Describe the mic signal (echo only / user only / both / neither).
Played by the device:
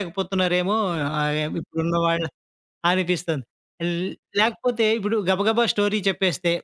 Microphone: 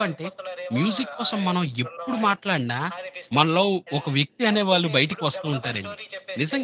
both